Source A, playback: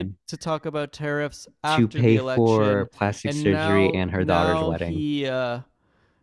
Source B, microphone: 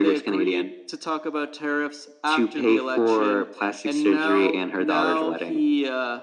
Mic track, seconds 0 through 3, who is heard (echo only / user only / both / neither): echo only